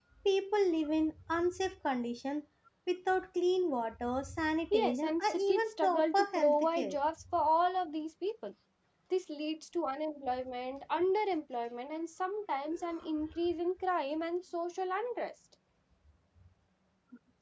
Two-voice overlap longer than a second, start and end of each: 4.7-7.0

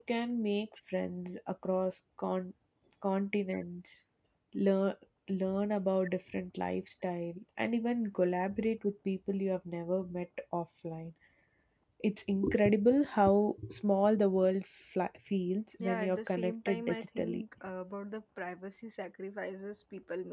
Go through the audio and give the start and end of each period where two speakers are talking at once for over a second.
15.8-17.4

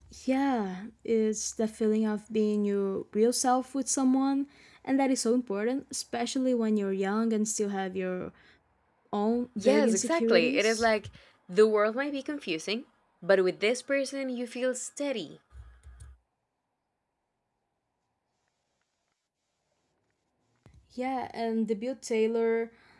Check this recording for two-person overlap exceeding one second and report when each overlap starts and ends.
9.6-10.9

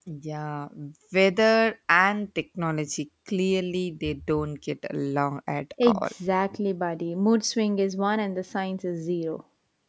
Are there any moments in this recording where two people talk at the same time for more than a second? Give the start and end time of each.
none

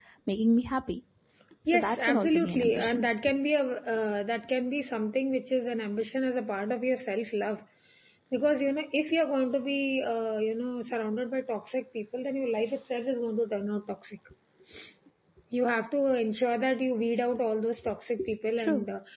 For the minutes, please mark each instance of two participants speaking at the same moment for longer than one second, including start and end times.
1.7-3.0

